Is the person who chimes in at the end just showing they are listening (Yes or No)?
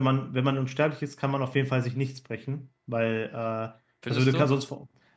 Yes